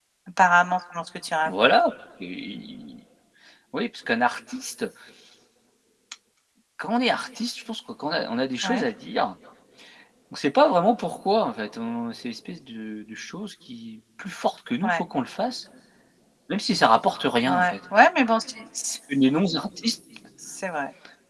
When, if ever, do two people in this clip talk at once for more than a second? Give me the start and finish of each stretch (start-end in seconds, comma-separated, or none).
none